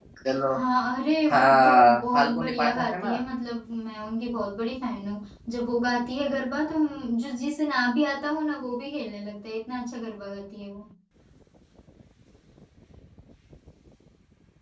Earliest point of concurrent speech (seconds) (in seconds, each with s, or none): 1.3 s